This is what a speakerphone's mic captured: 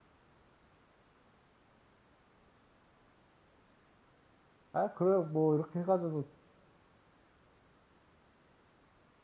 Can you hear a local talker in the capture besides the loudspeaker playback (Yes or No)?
Yes